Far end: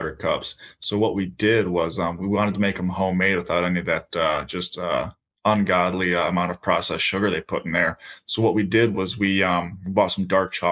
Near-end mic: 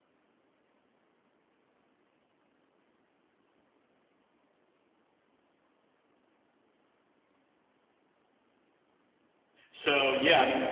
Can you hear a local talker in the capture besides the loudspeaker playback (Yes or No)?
Yes